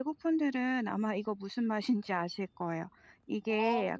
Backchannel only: Yes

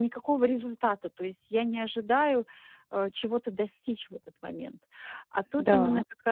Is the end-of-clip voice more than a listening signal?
No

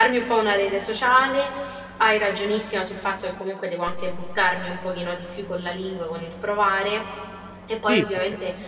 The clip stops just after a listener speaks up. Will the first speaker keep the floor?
Yes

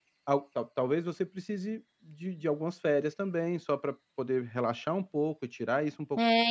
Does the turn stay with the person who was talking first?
No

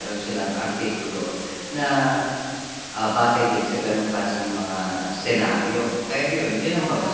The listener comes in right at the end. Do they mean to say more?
No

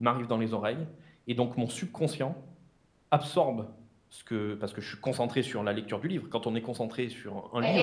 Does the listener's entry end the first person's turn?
Yes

